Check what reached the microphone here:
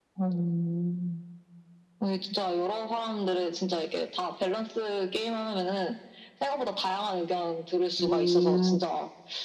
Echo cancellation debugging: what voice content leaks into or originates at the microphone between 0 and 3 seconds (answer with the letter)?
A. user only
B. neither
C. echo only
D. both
C